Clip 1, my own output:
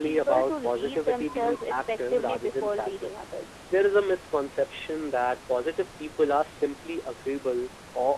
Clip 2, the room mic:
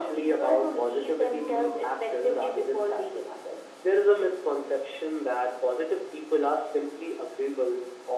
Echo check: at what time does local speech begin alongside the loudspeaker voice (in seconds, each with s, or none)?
none